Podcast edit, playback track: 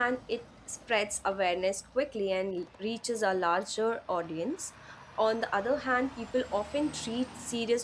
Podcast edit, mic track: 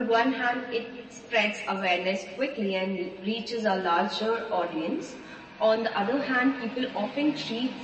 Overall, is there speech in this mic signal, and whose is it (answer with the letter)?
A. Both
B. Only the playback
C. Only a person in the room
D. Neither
B